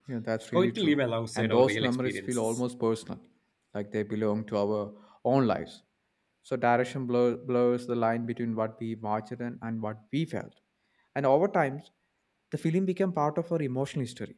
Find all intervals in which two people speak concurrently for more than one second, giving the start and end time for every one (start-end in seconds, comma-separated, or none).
1.4-2.6